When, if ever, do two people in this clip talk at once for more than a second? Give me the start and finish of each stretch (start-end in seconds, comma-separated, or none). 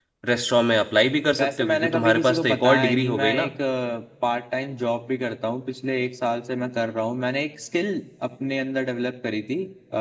1.4-3.5